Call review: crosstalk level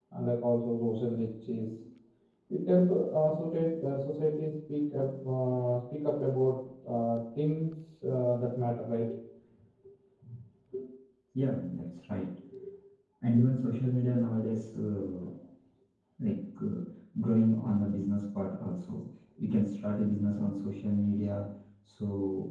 none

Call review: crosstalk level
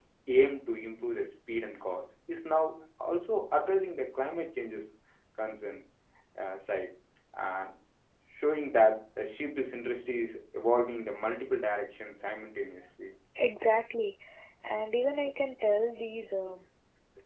none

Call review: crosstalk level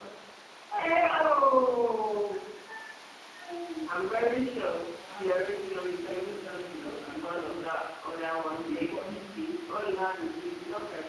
present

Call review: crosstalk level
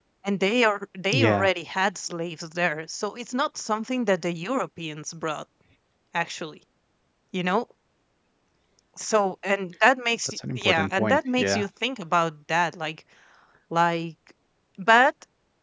present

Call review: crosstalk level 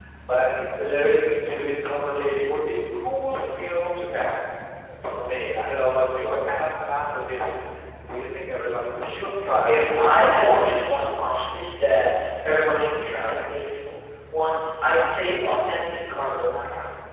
present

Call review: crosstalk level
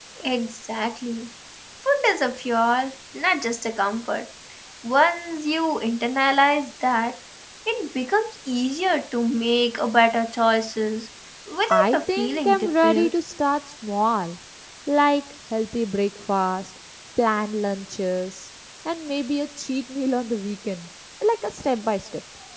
present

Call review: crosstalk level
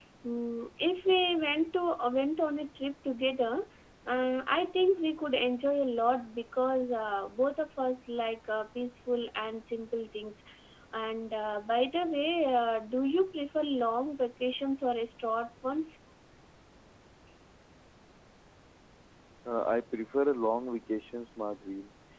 none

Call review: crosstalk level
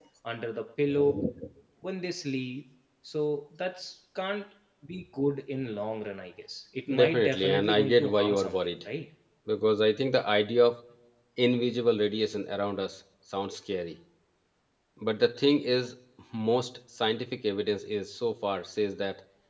present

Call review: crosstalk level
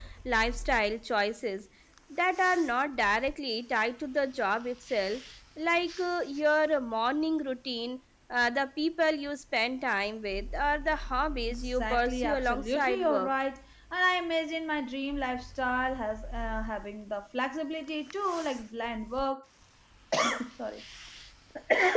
present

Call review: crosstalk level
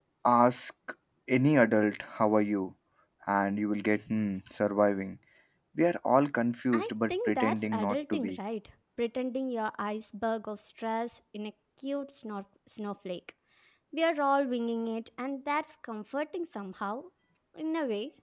present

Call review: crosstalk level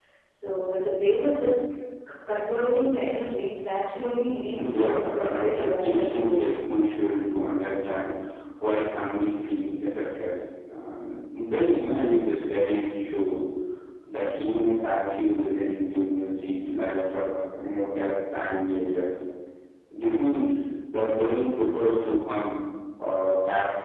present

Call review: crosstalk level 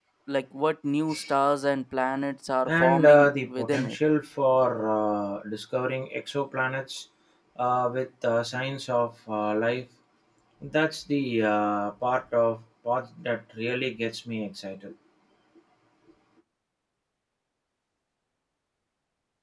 present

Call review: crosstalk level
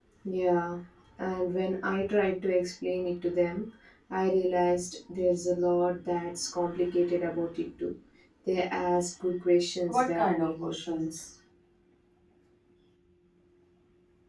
present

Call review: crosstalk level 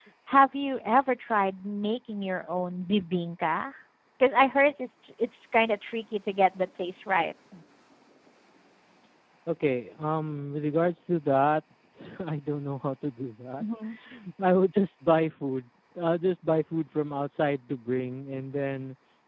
none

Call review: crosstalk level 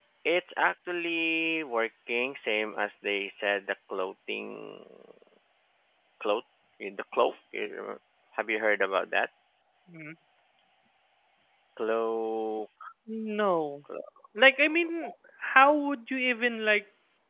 none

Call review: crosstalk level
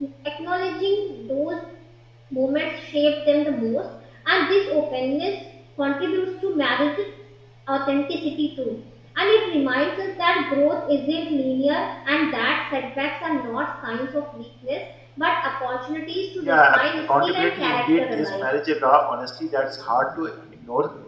present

